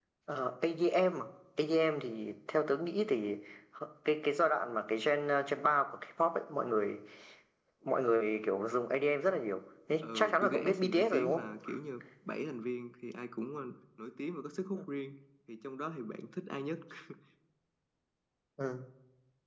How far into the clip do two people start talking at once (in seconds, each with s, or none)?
10.0 s